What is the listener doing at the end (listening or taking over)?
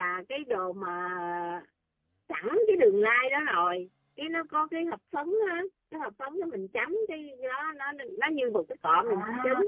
listening